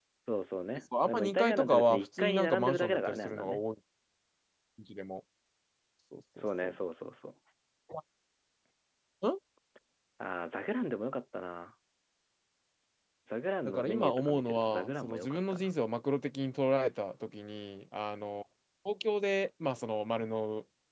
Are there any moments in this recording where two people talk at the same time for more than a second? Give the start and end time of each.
1.0-3.6, 13.6-15.7

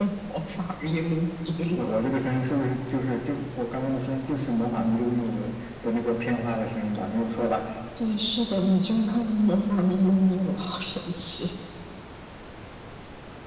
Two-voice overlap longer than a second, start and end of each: none

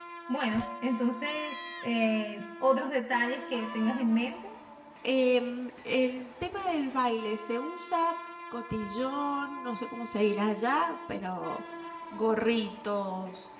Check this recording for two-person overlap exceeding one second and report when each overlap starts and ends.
none

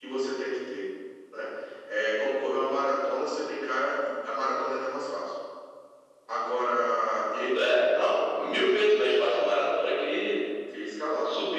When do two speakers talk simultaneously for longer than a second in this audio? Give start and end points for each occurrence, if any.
none

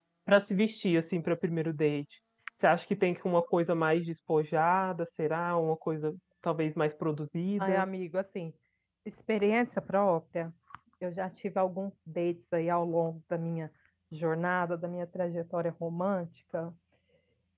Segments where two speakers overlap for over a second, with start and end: none

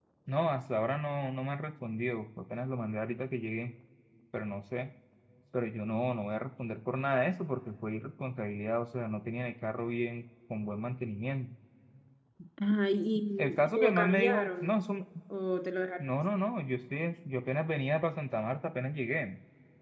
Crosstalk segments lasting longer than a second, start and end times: 13.4-14.7

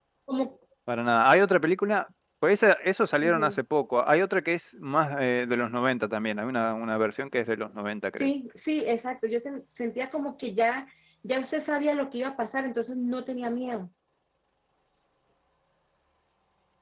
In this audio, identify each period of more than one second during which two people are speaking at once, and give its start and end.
none

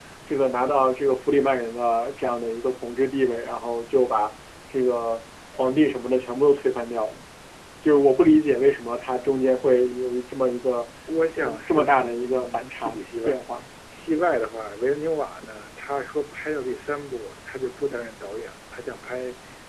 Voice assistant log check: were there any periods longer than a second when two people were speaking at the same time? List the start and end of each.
11.4-13.4

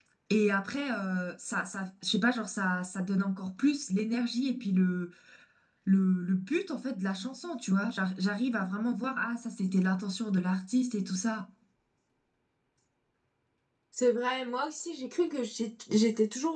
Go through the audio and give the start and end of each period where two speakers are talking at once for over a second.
none

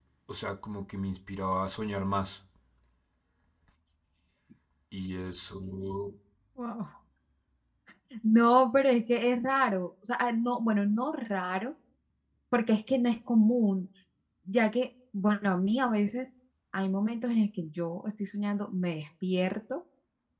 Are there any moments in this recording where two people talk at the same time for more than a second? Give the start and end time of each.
none

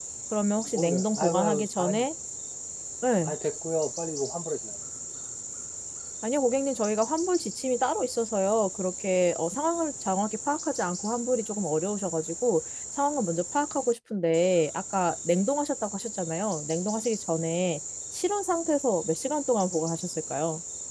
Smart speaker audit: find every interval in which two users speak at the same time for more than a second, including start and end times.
0.6-2.0

